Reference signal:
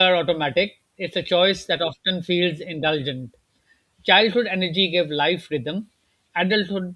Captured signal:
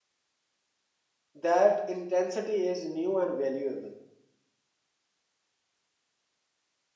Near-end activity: present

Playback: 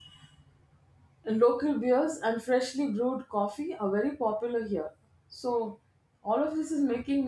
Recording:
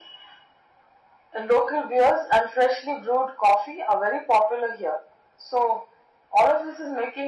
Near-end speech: none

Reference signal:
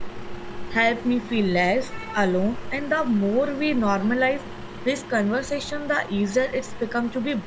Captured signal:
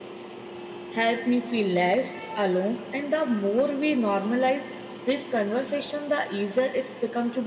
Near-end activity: none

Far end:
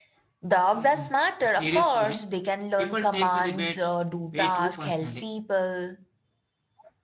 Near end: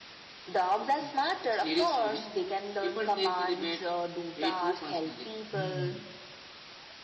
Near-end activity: present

